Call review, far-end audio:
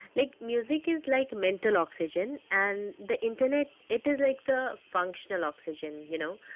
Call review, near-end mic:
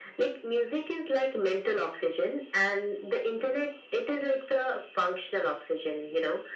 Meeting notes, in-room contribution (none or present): none